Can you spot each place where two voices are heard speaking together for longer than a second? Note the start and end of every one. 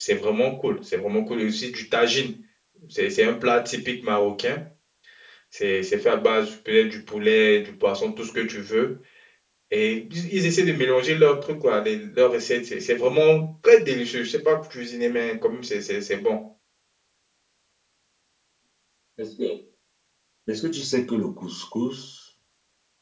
none

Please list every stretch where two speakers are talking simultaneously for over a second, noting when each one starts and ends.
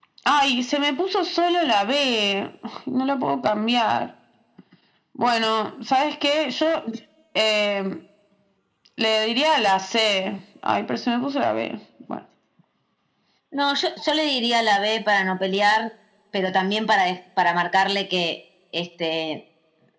none

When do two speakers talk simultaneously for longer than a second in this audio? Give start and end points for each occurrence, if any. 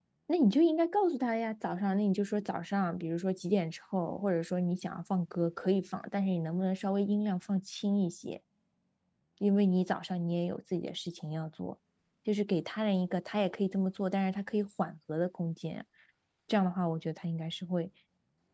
none

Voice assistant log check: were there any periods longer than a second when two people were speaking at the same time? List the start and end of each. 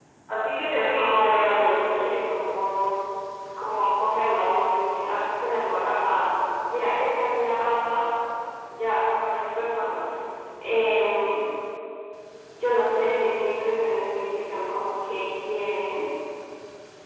0.7-2.0

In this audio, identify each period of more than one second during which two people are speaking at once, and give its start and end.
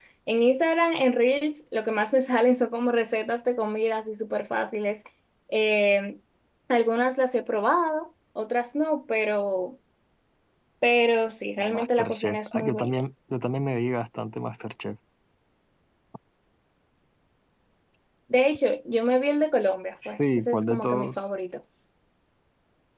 11.6-12.9, 20.1-21.2

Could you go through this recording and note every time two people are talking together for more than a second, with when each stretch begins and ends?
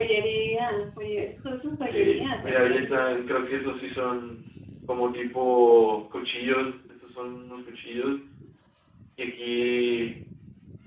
1.9-3.1

